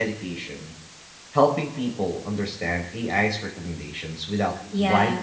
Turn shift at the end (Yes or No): Yes